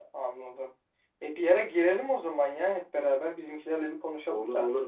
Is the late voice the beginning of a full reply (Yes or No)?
Yes